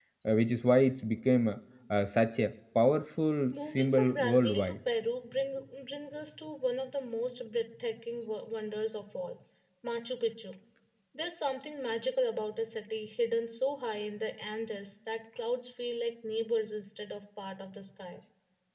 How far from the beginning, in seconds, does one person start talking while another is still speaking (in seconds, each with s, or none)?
3.5 s